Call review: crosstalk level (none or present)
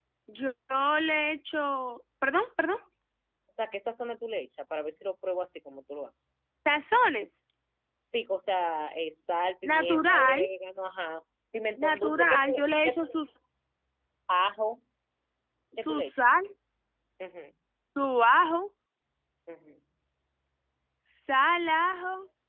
present